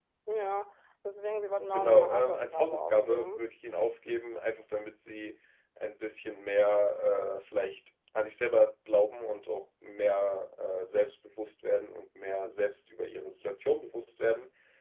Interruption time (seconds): 1.6 s

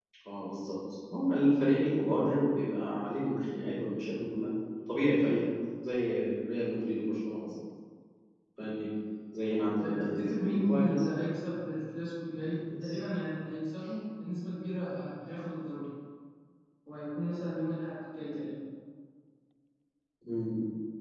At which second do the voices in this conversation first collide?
9.8 s

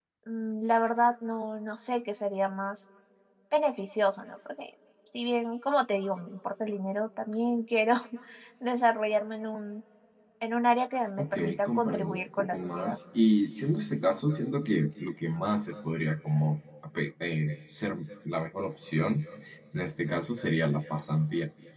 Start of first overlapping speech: 11.2 s

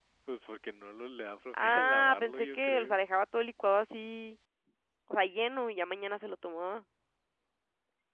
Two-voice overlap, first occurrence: 1.5 s

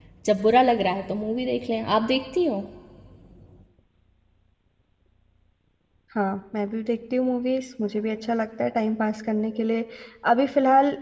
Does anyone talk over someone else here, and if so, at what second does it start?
none

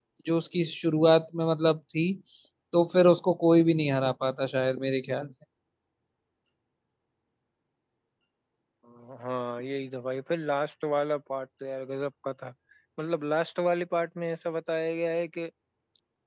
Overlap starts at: none

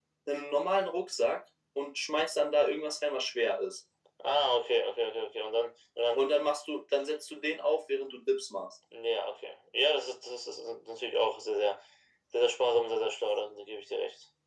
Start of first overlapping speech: none

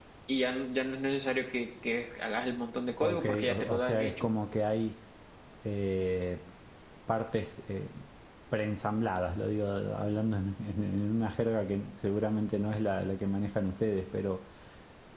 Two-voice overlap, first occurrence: 3.0 s

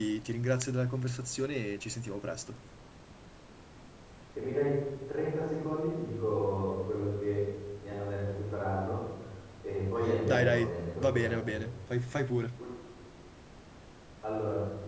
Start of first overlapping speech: 10.2 s

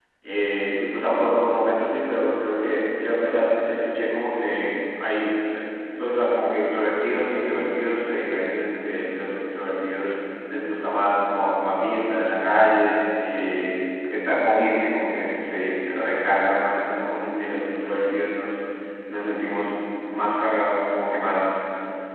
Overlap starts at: none

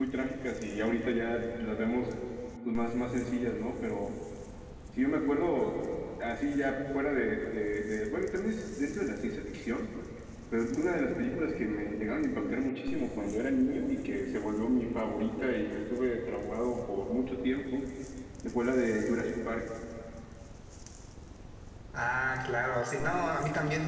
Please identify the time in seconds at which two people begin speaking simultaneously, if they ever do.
none

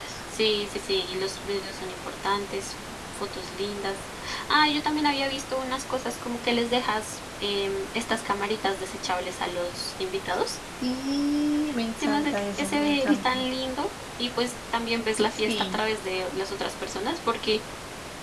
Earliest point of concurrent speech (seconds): 12.0 s

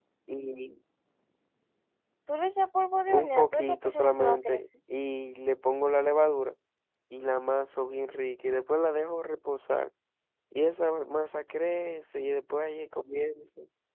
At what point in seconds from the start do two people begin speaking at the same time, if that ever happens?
3.1 s

